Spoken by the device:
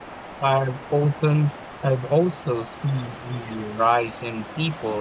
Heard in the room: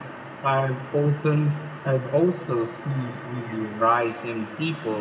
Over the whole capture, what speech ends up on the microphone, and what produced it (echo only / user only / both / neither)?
echo only